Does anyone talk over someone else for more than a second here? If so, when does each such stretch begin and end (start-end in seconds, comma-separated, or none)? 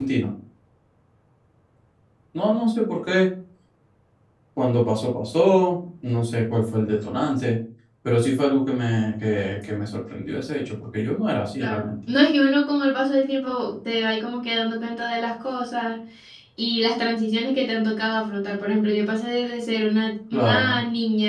none